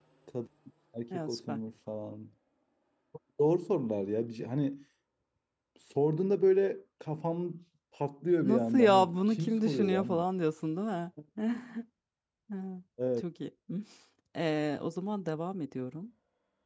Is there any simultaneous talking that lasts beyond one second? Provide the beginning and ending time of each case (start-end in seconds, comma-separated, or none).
8.4-10.2